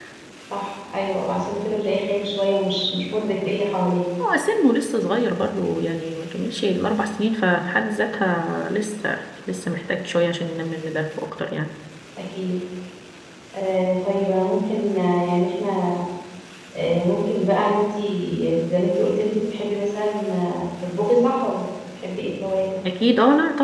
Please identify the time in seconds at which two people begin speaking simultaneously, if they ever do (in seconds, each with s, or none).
none